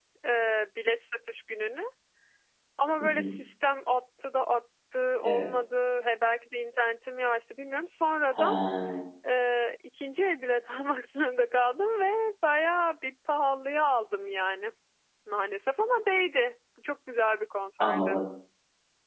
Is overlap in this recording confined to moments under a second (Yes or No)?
Yes